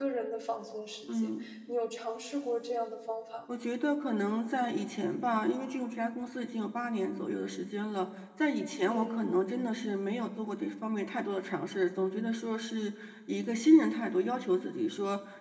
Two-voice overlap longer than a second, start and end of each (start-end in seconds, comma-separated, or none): none